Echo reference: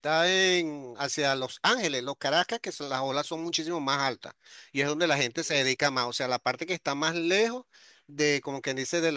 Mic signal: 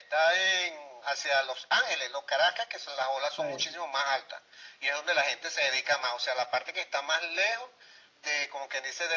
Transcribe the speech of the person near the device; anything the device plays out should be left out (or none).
bien.